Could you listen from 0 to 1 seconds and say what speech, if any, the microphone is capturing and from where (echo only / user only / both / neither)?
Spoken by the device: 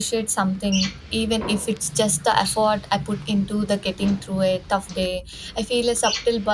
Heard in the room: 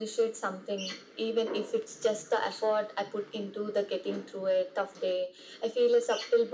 echo only